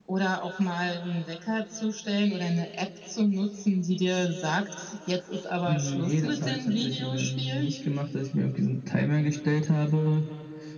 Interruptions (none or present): present